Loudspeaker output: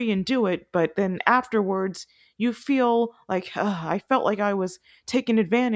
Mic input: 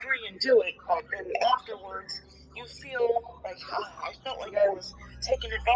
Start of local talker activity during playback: none

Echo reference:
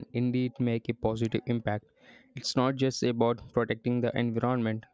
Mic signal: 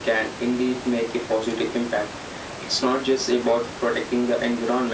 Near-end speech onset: none

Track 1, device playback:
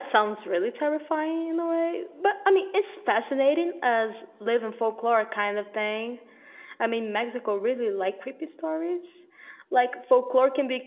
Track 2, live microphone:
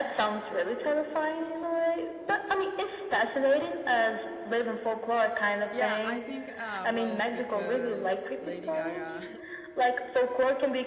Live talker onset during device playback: 5.7 s

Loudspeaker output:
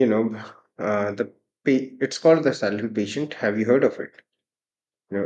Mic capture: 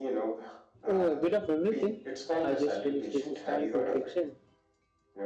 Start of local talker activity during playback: 0.9 s

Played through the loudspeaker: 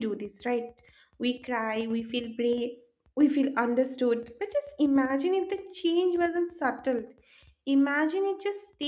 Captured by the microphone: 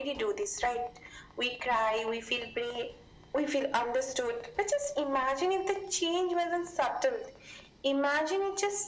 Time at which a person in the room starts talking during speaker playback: none

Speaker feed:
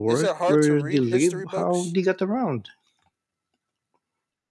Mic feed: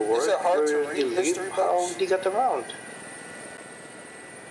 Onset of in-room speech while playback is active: none

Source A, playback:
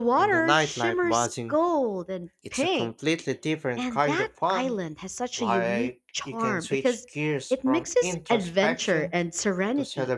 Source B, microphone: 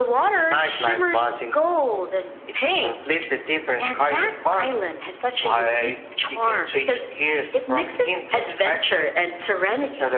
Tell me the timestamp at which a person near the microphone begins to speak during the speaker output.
none

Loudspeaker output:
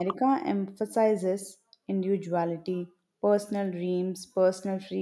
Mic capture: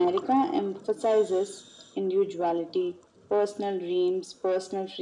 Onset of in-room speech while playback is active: none

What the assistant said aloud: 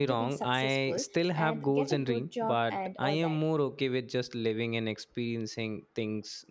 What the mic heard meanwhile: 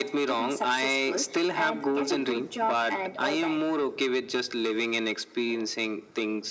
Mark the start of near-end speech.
none

